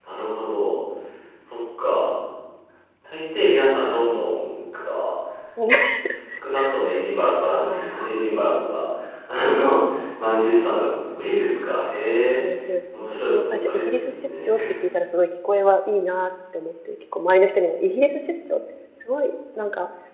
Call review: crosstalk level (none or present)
present